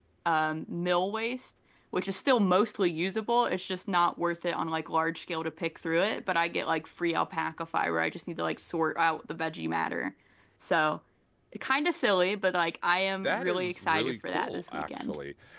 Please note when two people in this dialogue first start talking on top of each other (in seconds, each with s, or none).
13.2 s